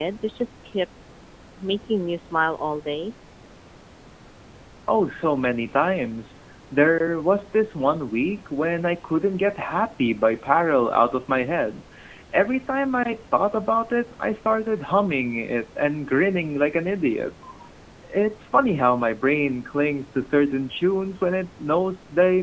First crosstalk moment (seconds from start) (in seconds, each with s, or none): none